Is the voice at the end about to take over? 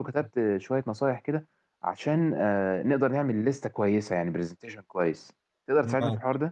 Yes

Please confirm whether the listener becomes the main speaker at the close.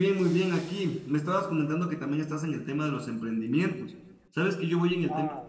No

